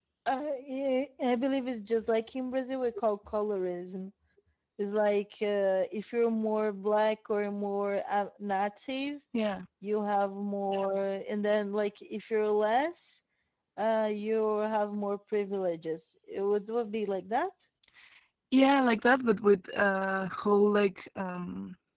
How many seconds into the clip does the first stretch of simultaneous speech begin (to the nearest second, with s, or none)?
none